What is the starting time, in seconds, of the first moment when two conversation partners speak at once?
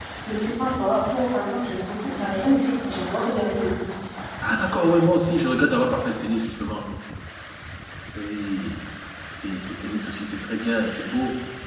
none

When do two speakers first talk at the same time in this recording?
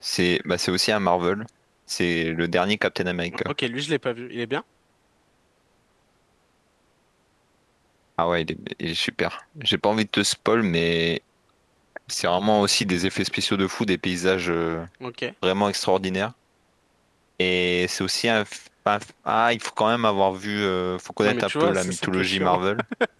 21.2 s

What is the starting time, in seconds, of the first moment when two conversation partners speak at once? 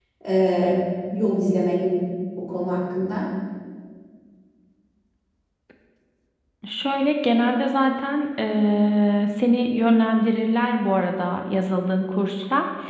none

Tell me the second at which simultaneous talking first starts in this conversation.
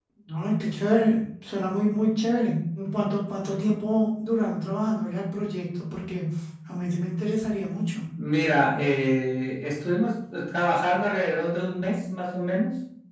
none

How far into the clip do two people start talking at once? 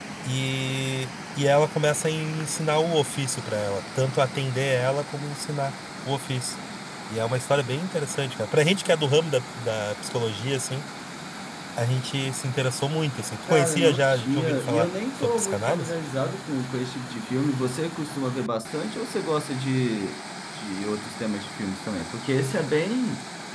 13.5 s

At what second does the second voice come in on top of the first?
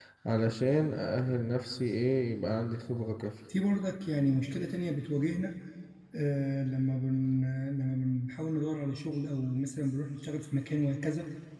none

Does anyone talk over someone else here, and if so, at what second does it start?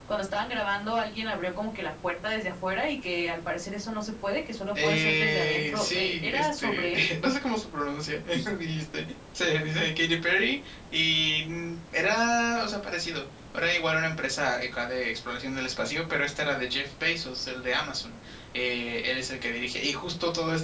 4.8 s

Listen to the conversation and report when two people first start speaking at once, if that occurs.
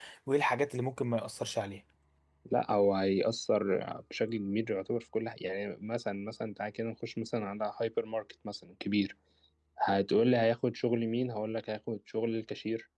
none

